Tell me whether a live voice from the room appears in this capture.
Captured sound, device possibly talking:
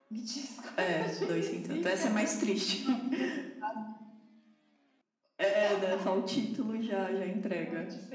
No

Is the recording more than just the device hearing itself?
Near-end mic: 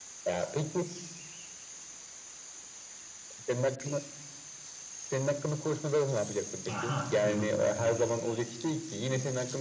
Yes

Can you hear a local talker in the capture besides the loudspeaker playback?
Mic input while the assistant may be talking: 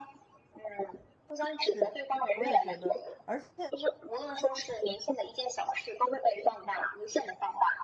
Yes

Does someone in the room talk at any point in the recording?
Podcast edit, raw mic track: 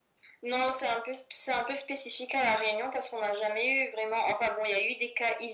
No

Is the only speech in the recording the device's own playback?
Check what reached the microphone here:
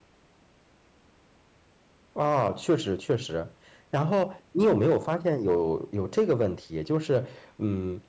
No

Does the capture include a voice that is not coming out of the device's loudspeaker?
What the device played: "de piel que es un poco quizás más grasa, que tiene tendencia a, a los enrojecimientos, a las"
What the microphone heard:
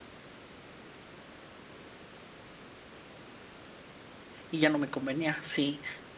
Yes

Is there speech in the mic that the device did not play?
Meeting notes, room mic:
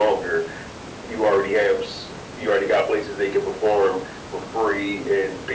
No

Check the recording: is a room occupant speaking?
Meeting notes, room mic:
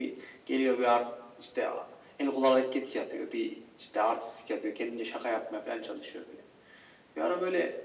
No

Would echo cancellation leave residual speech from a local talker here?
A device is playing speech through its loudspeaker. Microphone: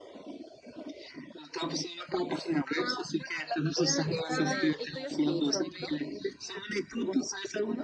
Yes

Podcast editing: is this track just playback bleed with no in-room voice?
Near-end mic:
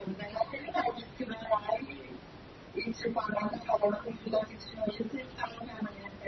Yes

